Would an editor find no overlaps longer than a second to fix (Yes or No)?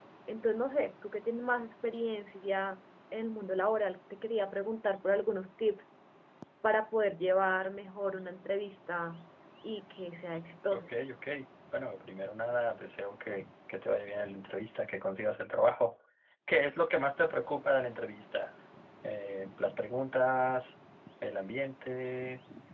Yes